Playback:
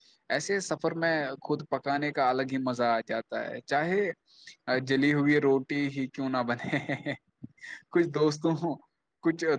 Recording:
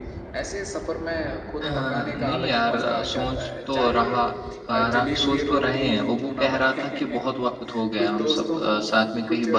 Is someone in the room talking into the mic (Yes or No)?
Yes